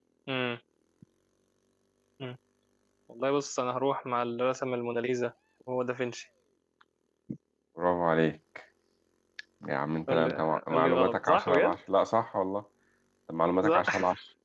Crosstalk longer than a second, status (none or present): present